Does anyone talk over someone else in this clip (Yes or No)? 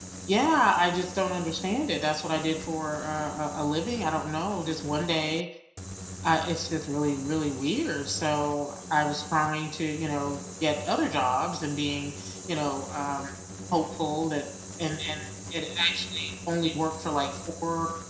No